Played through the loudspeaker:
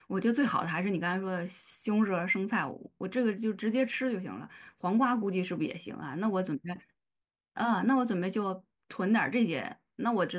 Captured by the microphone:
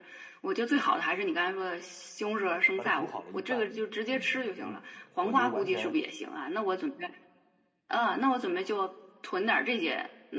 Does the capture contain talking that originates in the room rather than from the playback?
Yes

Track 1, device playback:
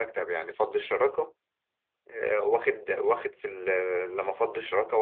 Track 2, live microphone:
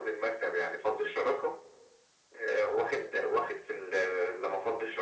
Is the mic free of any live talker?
Yes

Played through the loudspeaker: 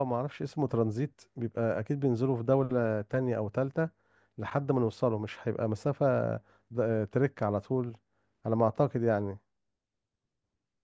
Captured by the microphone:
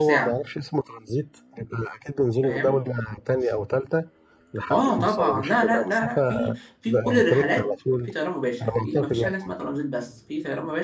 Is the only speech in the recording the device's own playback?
No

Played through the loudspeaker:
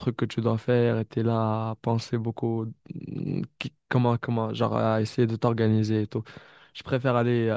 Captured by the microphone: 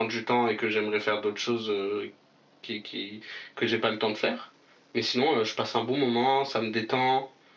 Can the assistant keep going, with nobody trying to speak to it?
No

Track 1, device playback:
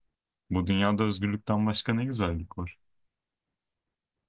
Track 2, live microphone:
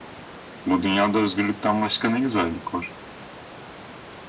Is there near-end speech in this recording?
No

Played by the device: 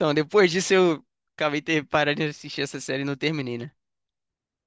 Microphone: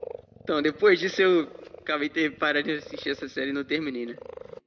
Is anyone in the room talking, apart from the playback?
No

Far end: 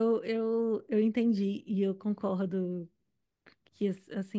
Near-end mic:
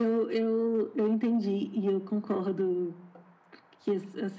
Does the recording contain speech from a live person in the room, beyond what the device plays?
No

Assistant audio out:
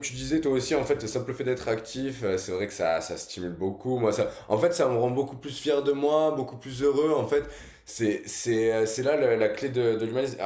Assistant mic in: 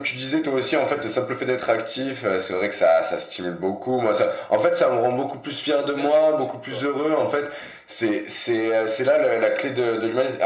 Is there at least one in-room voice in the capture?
Yes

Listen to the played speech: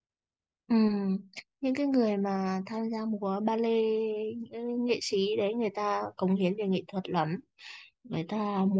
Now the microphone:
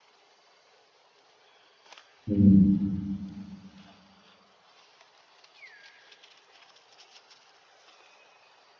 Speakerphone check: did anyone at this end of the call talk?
Yes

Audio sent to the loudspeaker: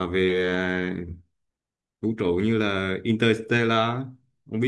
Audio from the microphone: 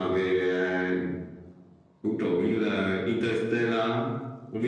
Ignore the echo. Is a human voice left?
No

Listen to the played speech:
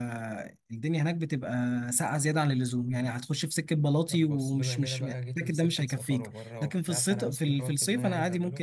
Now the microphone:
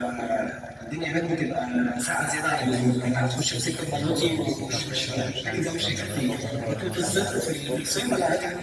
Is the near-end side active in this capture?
Yes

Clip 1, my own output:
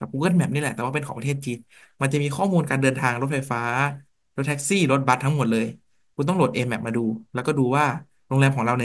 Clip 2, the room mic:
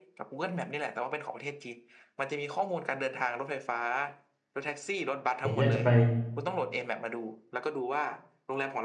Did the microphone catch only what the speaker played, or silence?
No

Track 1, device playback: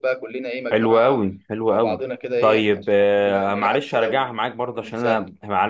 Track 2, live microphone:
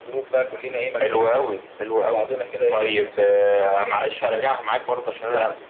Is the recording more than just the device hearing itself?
No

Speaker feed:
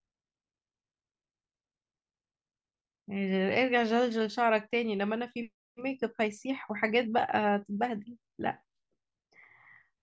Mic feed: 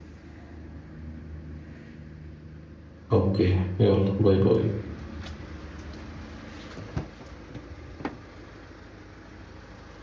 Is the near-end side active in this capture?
Yes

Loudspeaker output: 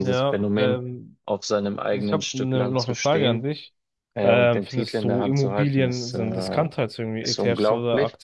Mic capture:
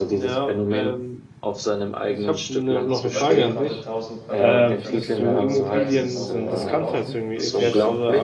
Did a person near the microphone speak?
Yes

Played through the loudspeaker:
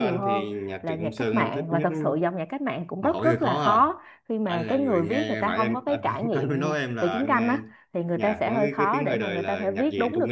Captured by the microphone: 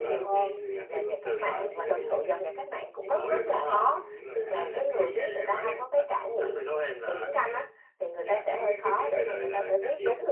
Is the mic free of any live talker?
No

